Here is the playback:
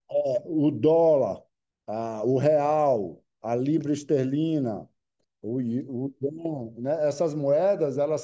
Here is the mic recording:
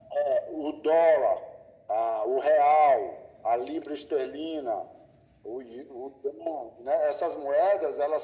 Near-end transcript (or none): none